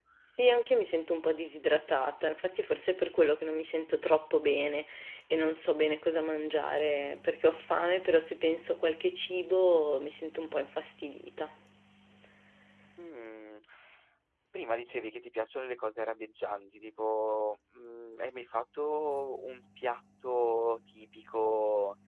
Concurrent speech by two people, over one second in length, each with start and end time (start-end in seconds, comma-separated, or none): none